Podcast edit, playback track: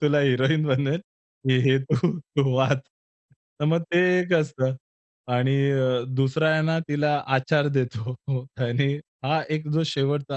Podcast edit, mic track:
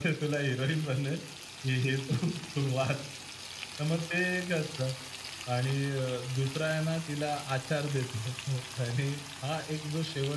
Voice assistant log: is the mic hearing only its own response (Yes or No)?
Yes